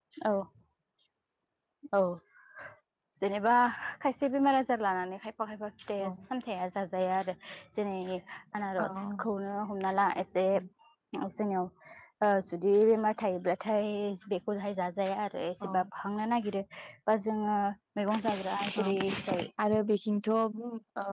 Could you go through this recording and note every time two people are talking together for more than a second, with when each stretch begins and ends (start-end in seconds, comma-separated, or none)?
none